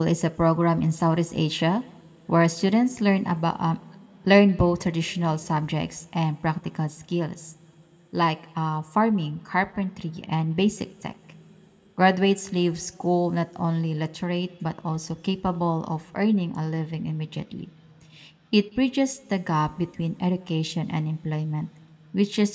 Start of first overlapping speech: none

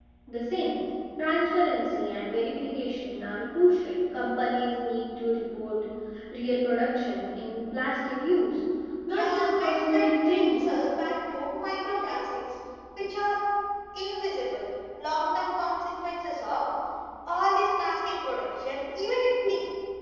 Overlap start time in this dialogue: 9 s

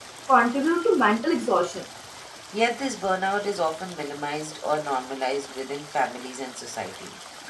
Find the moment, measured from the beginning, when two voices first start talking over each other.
none

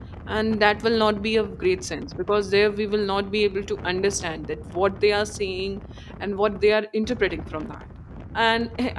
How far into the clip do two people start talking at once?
none

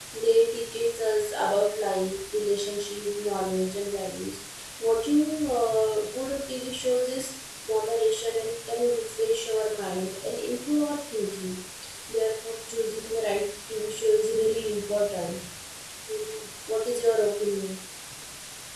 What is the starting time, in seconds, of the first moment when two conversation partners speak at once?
none

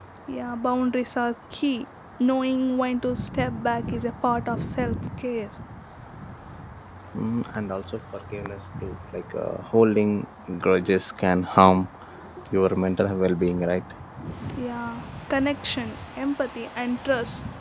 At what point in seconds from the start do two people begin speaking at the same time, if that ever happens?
none

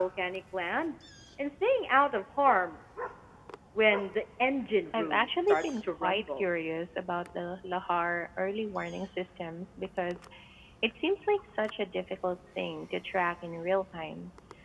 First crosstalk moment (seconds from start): 5 s

